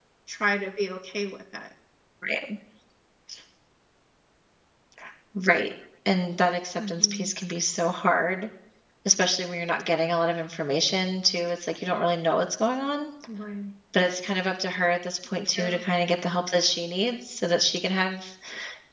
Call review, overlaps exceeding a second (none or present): none